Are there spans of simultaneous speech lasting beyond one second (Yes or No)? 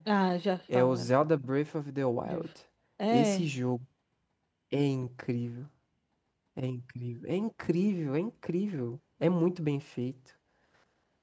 No